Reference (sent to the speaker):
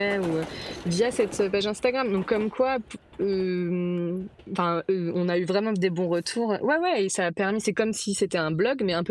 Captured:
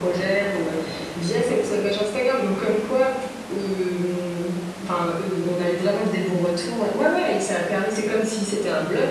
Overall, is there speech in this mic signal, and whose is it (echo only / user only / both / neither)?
echo only